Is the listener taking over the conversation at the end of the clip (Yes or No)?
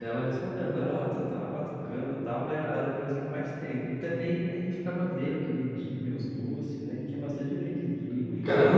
Yes